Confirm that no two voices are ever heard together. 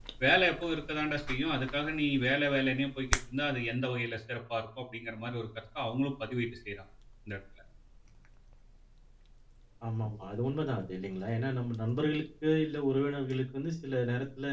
Yes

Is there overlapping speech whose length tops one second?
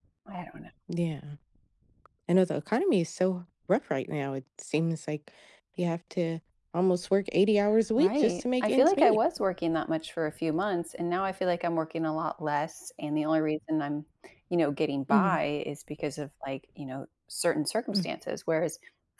Yes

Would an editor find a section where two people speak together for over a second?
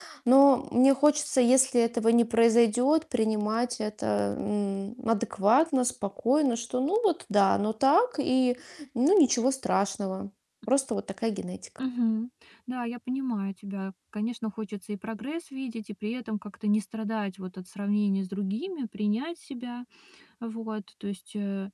No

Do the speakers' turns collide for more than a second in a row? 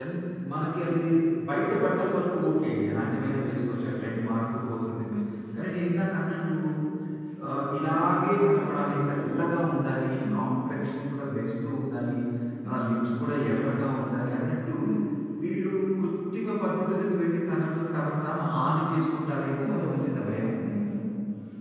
No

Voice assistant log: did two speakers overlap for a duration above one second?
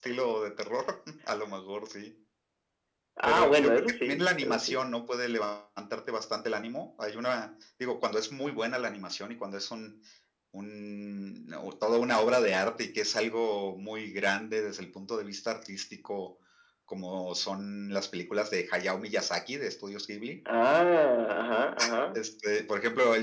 Yes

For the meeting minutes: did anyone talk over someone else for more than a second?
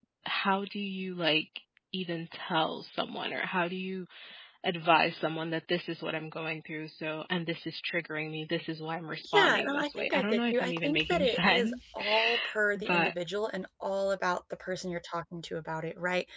Yes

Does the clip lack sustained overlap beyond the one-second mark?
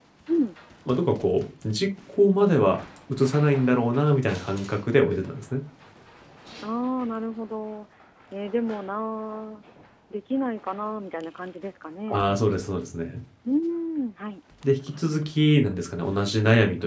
Yes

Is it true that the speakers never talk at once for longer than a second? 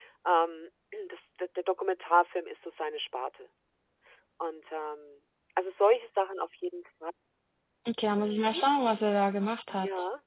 Yes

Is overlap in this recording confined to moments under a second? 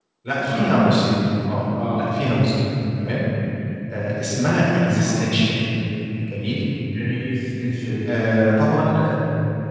Yes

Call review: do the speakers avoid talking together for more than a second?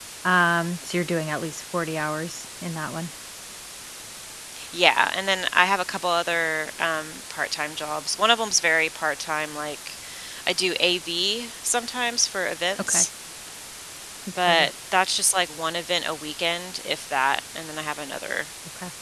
Yes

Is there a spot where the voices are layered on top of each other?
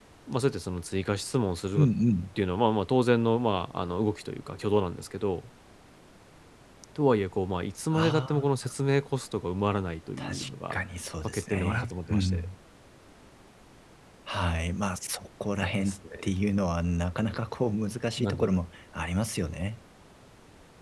Yes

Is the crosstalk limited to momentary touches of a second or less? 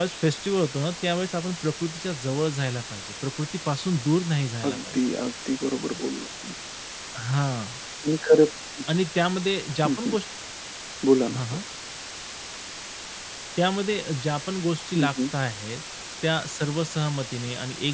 Yes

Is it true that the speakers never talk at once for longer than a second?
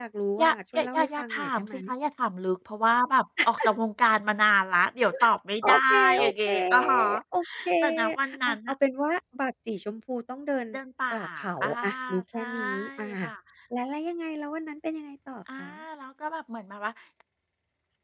No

